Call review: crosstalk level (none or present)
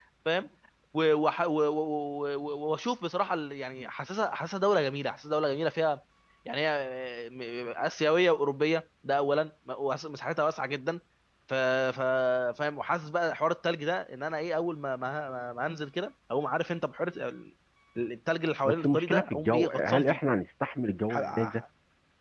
present